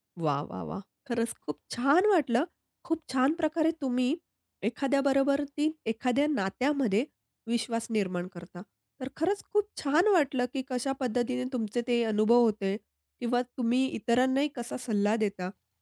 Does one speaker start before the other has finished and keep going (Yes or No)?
No